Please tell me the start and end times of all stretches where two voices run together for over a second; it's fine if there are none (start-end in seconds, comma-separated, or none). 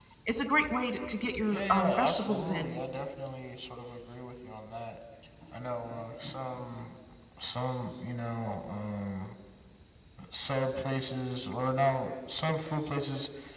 1.5-2.8